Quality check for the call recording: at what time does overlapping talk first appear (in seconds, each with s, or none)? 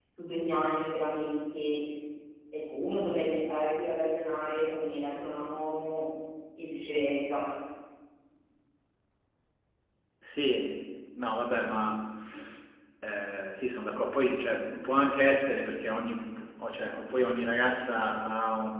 none